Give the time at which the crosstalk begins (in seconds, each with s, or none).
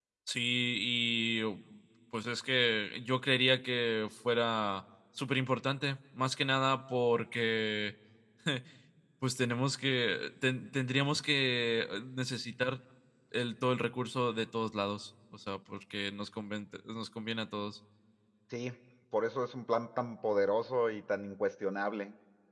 none